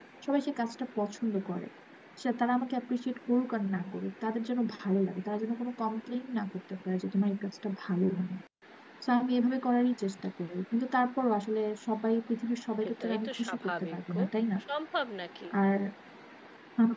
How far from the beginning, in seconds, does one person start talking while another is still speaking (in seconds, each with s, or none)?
12.8 s